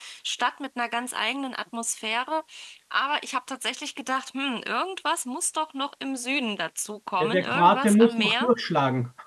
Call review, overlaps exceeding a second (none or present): present